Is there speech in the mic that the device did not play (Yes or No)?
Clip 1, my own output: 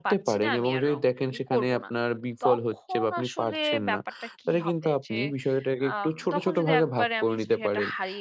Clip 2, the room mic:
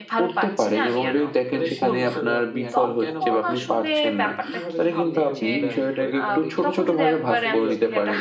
Yes